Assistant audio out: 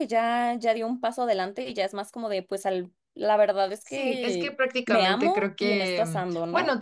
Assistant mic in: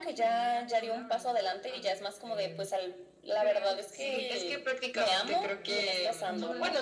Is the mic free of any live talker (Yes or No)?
No